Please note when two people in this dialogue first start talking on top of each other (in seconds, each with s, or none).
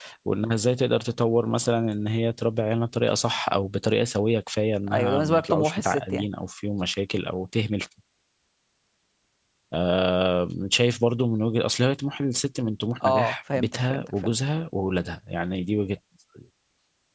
4.9 s